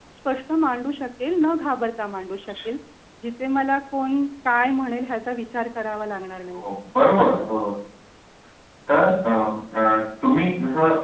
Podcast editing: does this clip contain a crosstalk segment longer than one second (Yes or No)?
No